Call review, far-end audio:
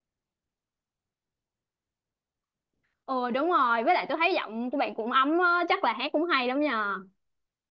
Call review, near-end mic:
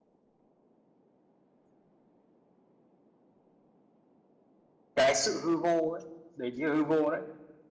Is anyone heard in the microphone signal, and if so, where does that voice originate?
user only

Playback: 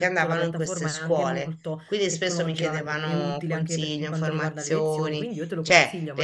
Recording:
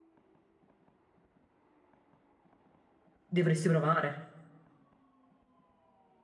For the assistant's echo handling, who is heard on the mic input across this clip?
user only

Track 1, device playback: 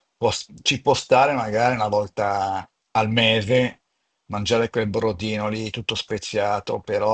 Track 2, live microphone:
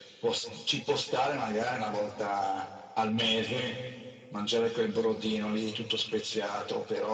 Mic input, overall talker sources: echo only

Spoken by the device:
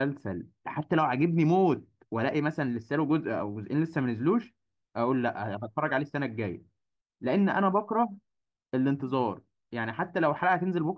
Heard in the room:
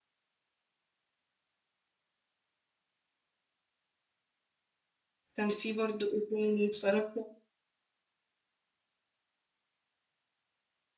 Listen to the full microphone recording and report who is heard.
user only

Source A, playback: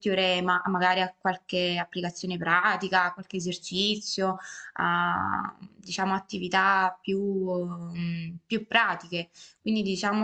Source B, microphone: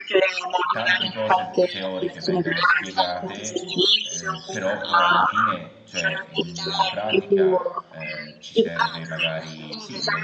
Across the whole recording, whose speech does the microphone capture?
both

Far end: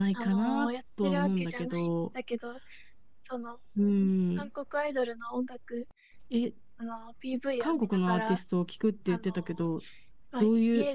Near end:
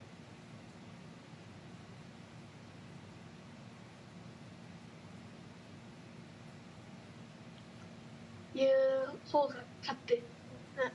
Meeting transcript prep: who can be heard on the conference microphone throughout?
user only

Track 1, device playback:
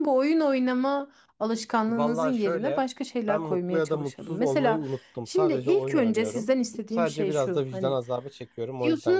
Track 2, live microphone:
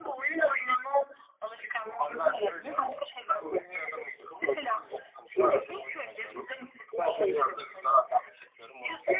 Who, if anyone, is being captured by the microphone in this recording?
echo only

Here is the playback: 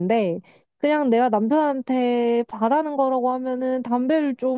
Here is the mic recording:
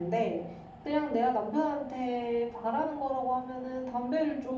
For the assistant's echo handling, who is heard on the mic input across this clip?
echo only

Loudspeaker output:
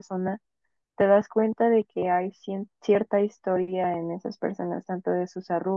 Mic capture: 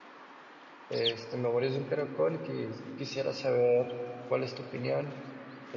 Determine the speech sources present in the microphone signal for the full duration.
user only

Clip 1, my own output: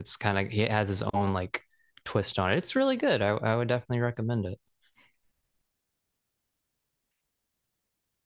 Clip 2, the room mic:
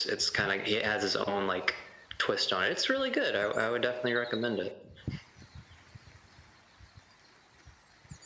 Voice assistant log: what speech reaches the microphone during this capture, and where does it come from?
echo only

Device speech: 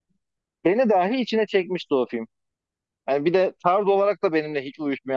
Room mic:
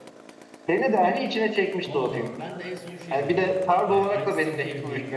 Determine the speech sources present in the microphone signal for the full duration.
both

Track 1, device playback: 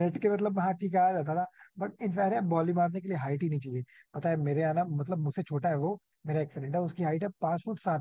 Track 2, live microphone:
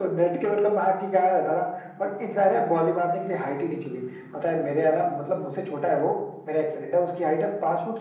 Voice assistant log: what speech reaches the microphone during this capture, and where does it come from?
echo only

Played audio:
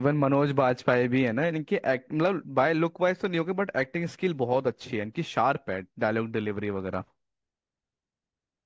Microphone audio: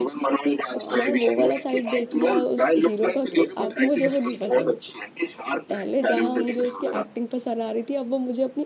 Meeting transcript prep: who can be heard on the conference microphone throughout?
both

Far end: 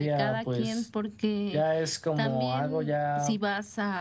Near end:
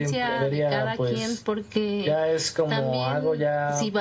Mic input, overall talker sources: echo only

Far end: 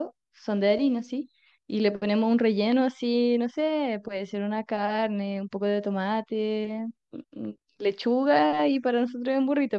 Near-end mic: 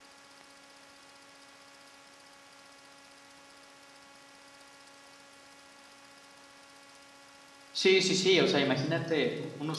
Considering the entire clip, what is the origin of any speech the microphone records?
user only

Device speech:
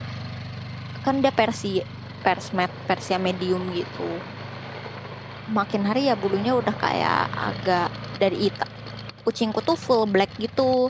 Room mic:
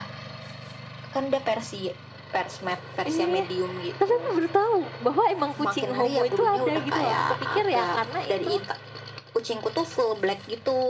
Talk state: both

